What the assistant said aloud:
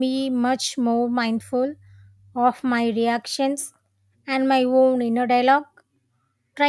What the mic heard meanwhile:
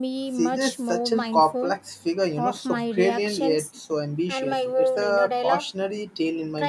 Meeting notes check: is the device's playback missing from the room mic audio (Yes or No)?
No